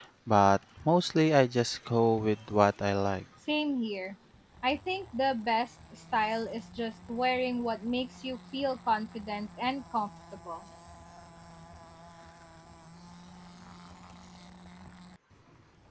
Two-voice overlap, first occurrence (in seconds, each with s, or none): none